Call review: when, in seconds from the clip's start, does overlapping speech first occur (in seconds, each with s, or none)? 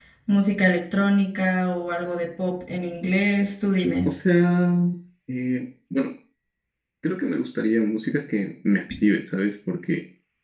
none